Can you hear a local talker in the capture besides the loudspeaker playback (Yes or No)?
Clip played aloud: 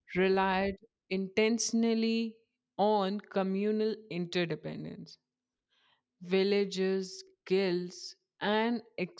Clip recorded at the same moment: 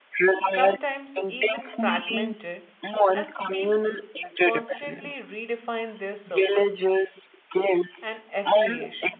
Yes